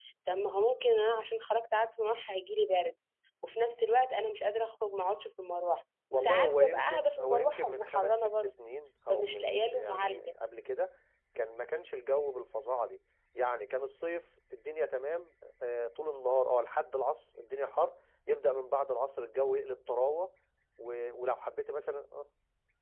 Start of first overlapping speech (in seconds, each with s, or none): 6.1 s